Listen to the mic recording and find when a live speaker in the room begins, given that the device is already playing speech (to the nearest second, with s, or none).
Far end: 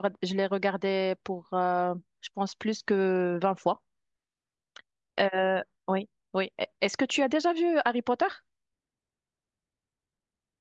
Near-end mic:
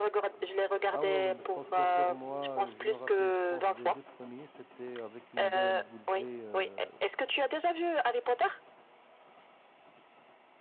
1 s